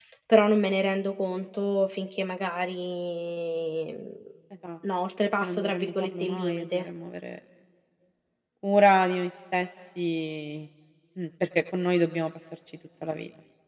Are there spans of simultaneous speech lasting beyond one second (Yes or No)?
Yes